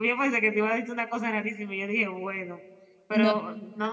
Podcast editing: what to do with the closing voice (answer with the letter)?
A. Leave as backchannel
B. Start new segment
A